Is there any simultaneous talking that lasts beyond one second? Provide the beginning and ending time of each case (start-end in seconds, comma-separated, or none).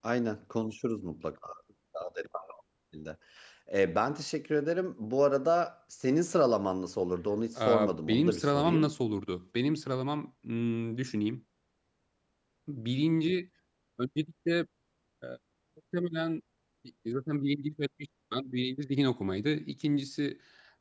7.6-8.9